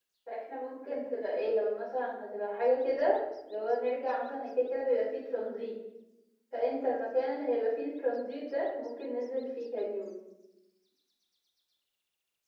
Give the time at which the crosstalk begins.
none

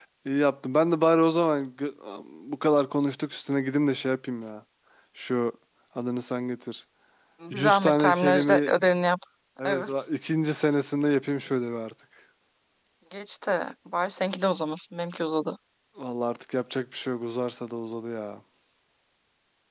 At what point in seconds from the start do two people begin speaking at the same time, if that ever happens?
7.5 s

